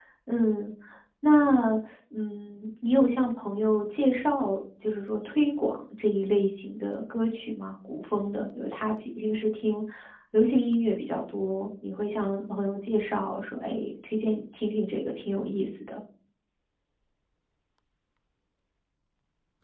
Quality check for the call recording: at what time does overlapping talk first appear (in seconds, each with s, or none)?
none